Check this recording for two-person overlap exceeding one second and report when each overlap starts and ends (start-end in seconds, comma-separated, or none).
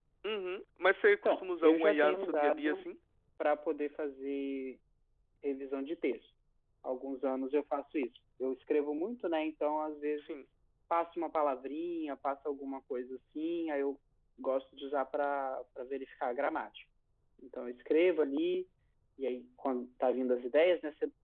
1.2-2.8